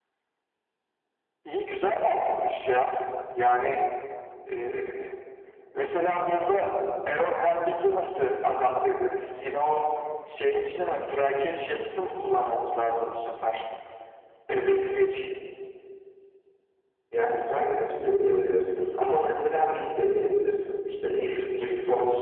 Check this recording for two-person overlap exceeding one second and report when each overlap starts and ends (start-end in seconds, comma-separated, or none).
none